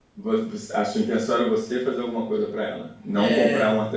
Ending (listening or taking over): listening